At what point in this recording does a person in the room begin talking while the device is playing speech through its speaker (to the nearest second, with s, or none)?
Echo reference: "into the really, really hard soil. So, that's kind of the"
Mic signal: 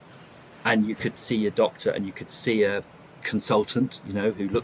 1 s